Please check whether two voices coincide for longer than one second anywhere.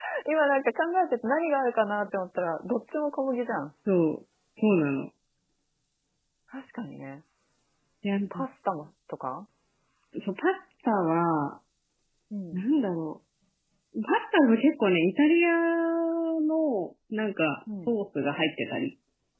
No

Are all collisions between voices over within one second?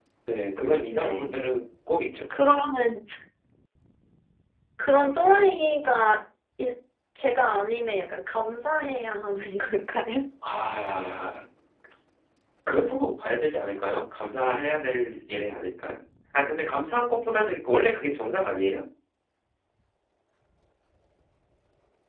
Yes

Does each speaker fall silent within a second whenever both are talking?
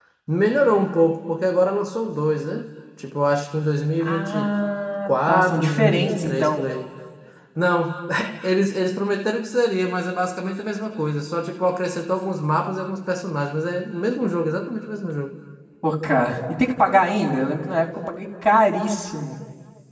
No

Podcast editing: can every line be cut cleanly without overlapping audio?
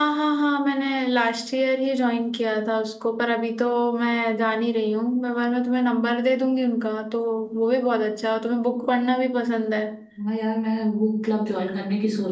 Yes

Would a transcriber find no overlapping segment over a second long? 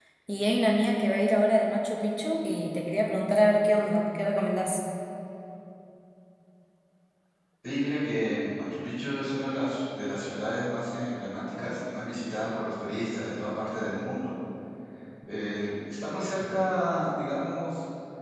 Yes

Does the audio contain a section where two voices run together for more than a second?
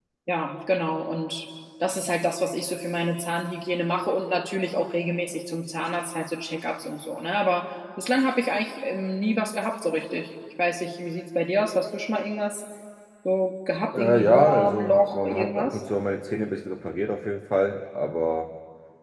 Yes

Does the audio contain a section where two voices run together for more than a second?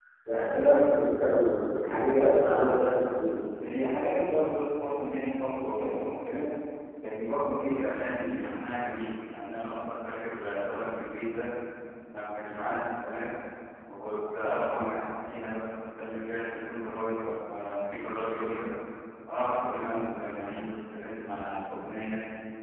No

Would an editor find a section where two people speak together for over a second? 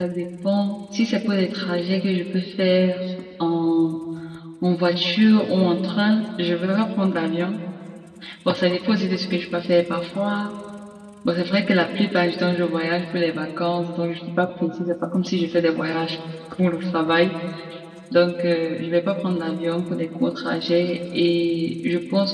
No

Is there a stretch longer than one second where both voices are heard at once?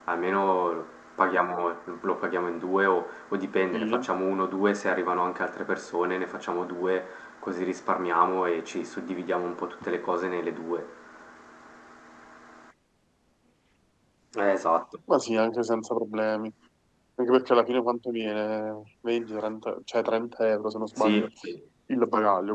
No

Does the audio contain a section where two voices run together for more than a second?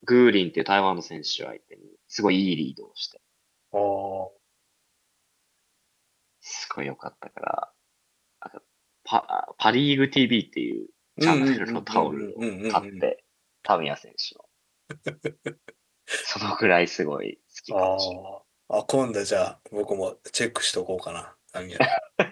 Yes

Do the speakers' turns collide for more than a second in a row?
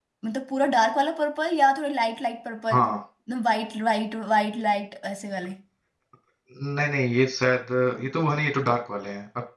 No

